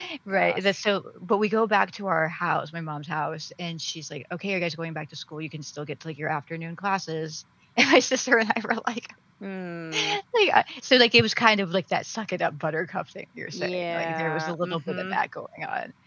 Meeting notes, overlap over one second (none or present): present